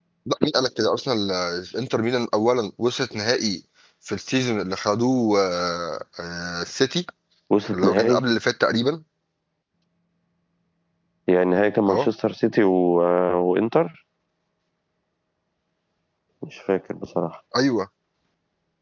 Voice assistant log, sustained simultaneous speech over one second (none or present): none